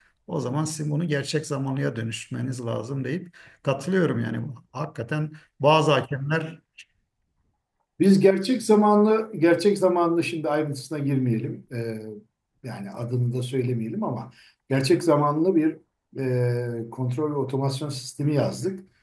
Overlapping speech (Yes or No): No